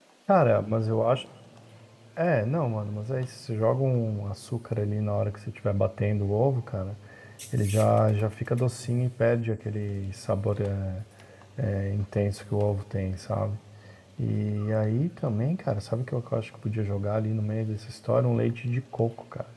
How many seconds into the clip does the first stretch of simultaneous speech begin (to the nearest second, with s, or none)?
none